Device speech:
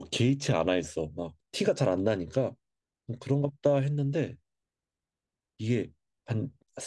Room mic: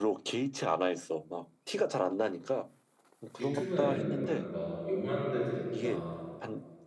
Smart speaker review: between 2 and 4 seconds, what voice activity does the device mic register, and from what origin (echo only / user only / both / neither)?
both